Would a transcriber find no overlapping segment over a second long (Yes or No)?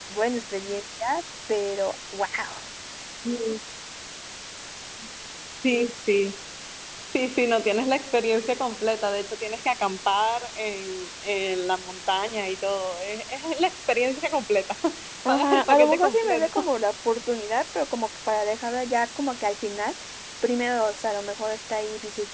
No